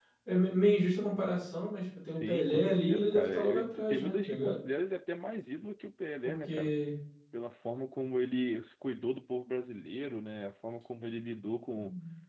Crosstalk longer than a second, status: present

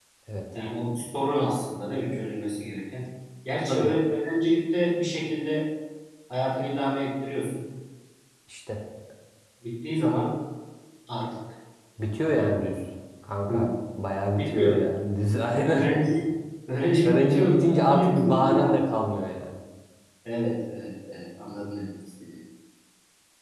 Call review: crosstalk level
present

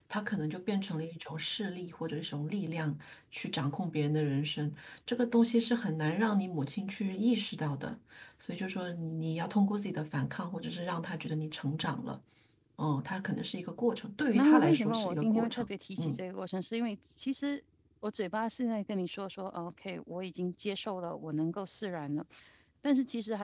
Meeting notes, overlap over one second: present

